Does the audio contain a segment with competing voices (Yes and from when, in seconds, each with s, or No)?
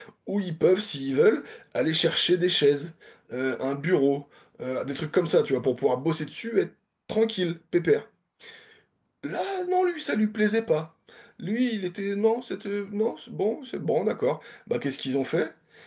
No